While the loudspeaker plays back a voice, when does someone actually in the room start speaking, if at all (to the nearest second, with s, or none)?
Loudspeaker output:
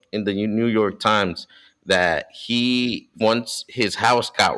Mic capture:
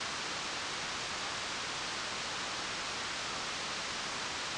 none